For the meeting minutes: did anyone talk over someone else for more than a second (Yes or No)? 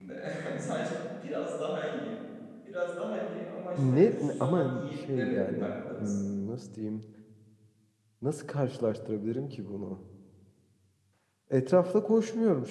Yes